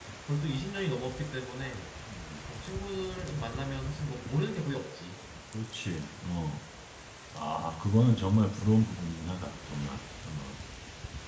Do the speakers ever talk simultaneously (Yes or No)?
No